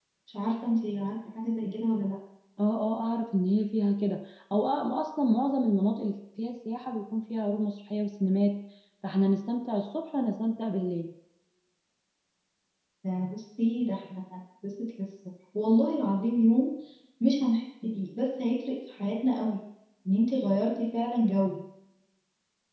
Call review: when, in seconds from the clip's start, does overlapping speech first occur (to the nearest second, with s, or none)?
none